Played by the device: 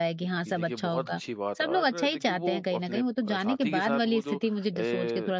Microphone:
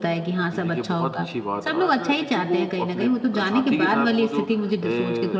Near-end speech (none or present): none